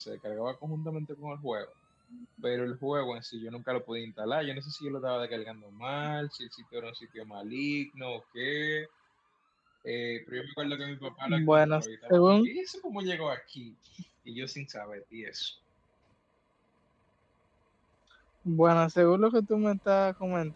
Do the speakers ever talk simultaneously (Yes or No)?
Yes